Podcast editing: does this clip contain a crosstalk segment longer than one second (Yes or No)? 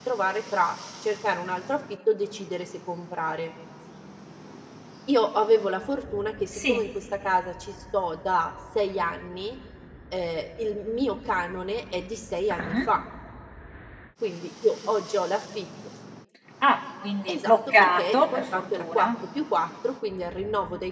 Yes